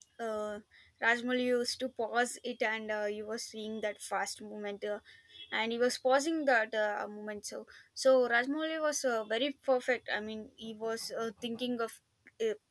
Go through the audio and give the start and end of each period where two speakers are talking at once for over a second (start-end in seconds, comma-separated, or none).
none